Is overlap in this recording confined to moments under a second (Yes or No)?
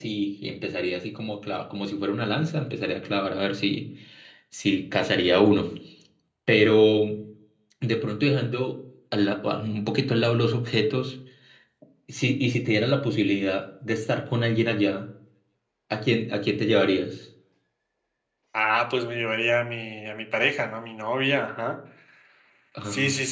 Yes